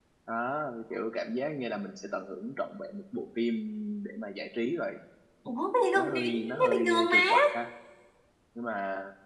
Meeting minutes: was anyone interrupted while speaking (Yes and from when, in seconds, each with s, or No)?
Yes, from 5.9 s